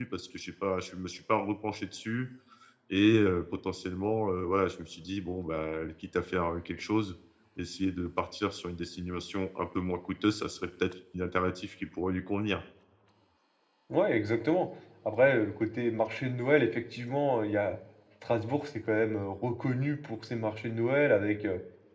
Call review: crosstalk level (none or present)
none